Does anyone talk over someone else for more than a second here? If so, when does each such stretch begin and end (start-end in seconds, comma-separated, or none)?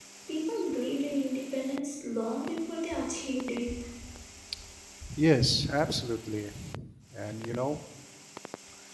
none